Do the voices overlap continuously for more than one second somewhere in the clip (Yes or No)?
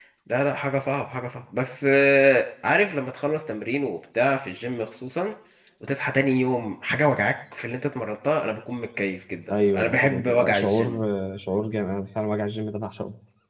Yes